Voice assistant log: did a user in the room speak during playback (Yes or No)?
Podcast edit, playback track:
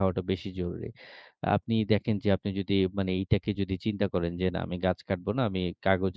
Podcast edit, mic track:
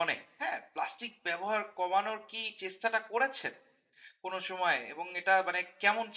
Yes